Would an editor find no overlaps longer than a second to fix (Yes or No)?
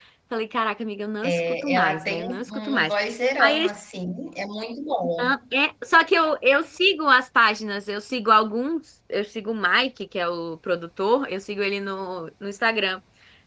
No